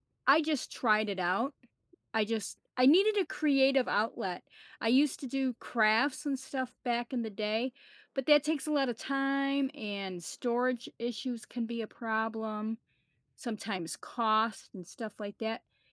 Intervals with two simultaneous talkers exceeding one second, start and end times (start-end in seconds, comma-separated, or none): none